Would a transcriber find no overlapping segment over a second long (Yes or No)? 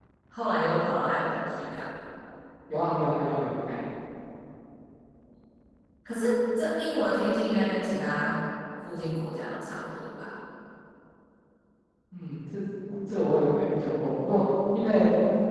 Yes